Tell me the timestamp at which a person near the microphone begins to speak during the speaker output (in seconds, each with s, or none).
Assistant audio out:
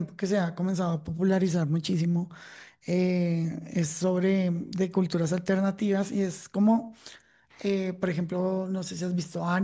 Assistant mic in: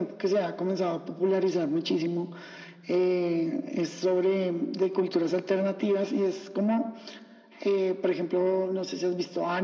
none